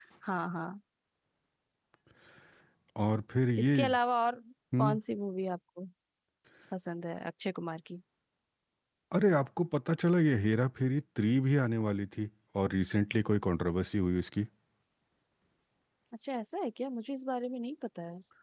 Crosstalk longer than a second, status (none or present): none